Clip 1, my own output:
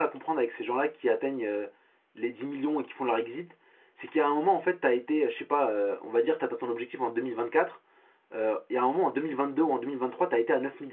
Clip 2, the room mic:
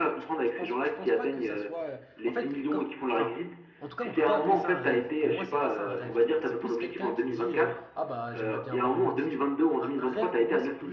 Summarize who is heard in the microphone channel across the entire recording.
both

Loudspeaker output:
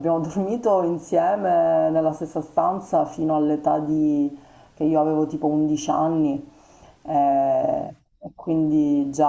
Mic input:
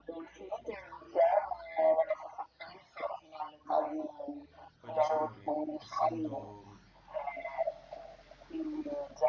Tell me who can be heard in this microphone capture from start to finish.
both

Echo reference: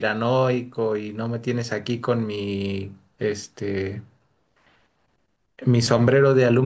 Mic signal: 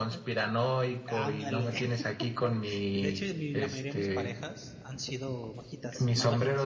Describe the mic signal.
both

